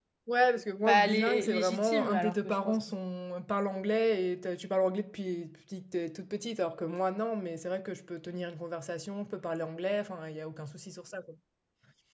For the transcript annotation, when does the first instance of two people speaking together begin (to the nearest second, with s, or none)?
1 s